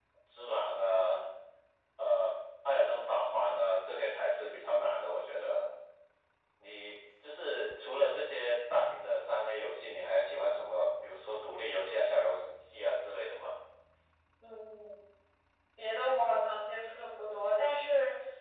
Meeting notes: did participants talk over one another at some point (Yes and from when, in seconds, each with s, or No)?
No